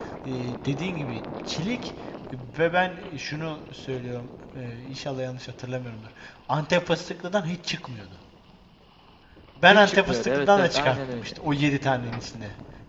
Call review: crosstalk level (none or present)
present